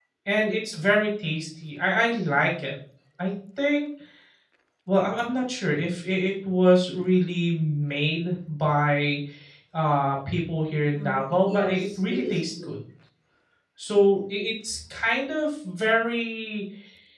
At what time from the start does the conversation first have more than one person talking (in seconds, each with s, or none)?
10.9 s